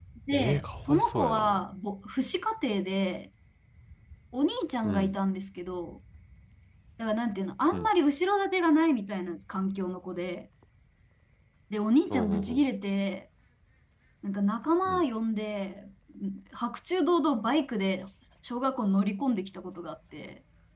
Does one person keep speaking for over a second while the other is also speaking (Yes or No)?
Yes